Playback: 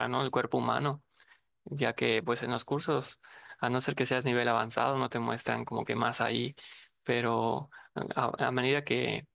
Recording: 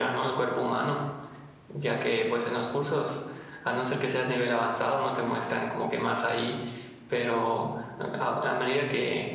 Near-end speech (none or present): none